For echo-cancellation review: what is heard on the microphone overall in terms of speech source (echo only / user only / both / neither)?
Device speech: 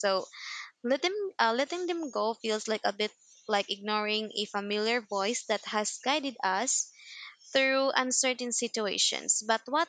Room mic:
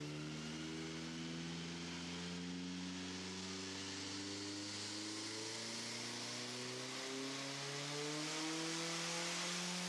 neither